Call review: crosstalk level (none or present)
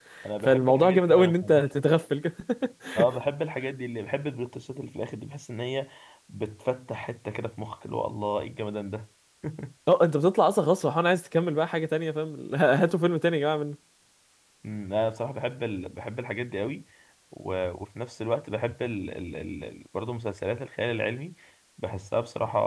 present